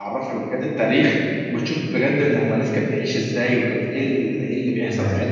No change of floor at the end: Yes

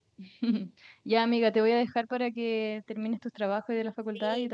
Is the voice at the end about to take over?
Yes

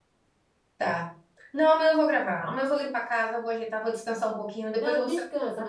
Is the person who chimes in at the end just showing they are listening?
No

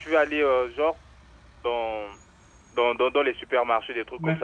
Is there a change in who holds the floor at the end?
No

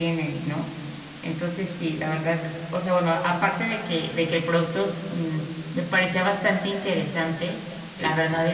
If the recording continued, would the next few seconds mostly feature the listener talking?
No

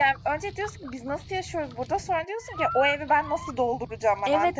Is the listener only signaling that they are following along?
No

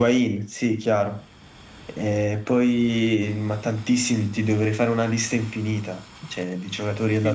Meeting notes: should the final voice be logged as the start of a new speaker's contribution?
Yes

